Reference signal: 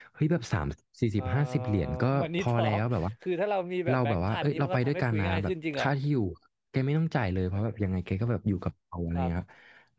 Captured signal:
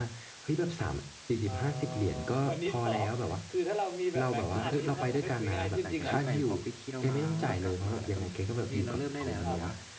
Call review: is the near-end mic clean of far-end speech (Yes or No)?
No